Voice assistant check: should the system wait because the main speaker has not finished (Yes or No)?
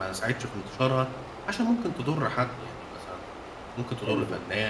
Yes